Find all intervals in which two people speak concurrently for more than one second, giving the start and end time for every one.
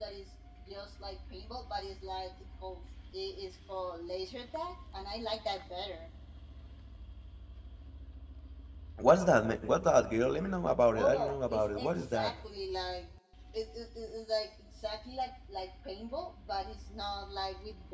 10.9-12.3

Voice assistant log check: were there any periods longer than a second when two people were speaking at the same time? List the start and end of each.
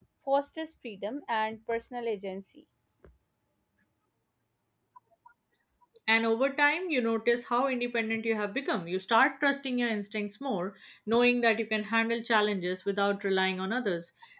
none

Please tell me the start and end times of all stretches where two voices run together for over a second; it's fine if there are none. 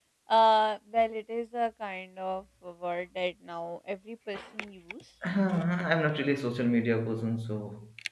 none

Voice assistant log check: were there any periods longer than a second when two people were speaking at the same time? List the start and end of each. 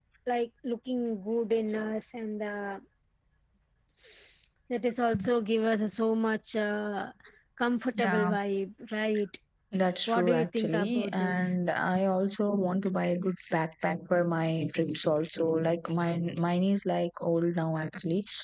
10.1-11.4

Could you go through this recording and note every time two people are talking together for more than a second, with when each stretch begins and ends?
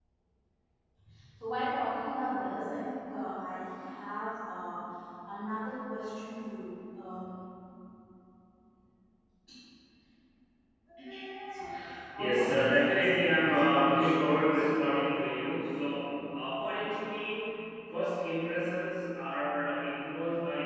12.2-14.7

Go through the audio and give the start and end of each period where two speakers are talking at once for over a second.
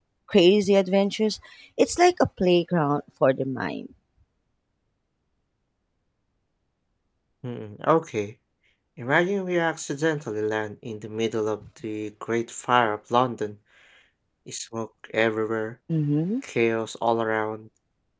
none

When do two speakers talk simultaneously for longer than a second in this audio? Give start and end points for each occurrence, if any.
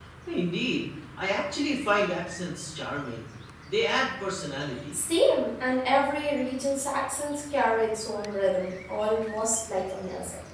none

